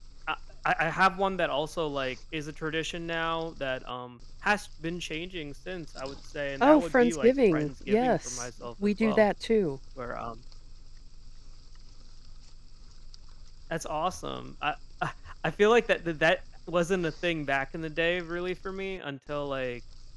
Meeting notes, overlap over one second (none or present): present